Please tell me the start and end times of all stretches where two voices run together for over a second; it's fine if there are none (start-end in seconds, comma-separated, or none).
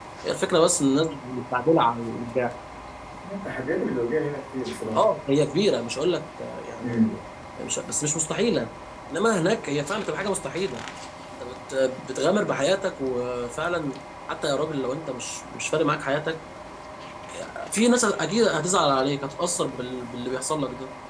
none